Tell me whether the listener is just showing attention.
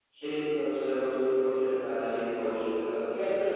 No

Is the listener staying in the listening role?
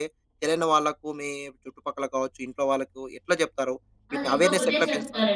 No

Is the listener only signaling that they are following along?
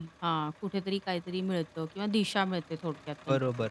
No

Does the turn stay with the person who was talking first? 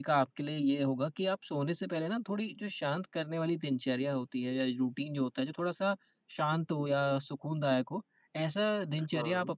Yes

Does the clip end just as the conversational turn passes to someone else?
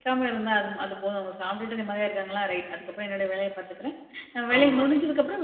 No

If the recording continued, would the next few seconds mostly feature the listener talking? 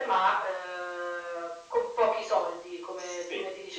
Yes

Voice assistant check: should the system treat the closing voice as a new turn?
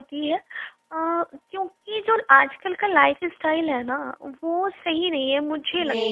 Yes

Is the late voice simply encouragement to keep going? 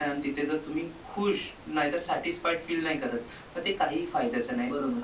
No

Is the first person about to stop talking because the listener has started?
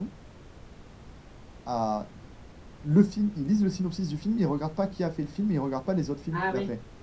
Yes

